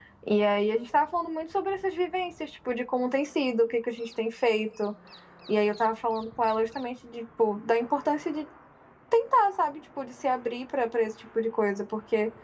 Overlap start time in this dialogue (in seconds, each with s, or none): none